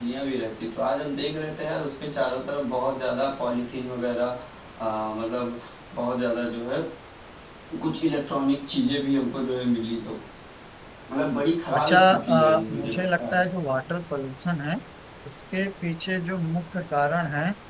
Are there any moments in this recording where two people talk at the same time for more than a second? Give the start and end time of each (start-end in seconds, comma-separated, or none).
11.8-13.4